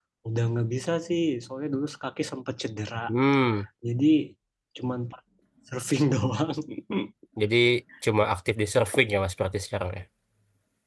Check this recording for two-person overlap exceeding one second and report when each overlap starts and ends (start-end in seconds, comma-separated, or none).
none